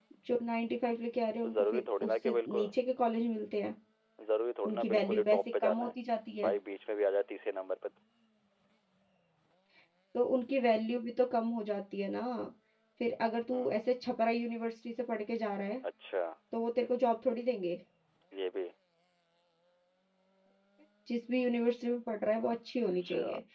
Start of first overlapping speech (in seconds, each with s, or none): 1.4 s